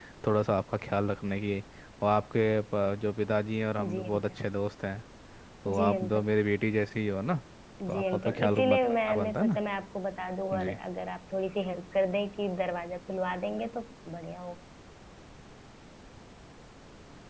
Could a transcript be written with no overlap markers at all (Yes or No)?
No